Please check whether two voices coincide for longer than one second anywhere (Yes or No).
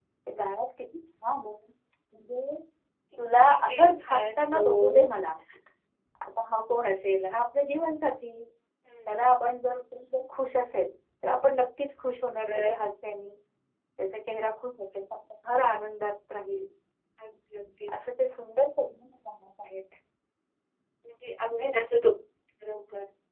Yes